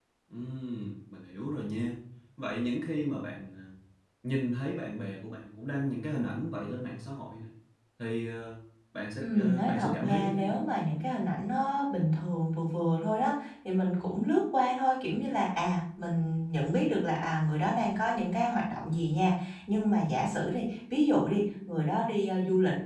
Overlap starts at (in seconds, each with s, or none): 9.2 s